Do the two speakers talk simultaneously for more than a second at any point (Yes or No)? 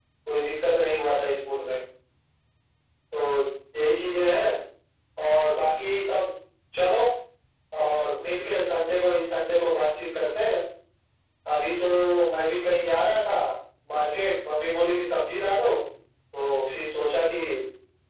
No